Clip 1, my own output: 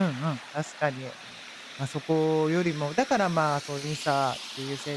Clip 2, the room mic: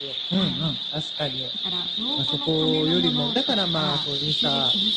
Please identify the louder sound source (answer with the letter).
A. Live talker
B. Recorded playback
B